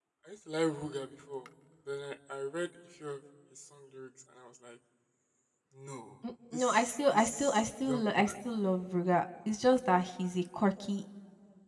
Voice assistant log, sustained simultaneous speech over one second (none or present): present